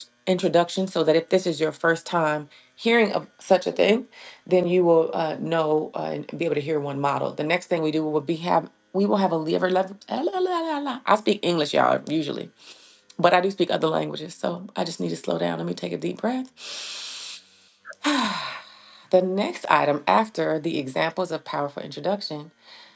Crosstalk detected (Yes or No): No